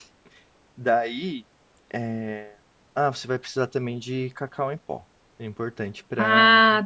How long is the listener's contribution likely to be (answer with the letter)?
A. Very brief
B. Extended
A